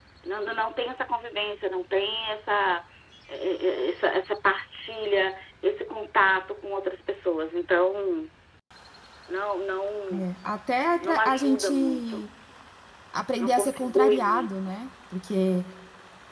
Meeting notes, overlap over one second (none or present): present